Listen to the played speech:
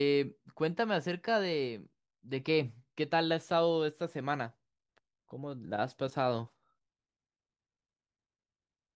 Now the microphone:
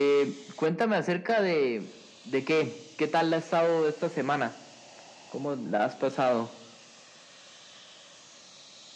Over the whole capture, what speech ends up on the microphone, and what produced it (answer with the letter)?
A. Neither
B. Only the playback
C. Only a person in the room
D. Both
B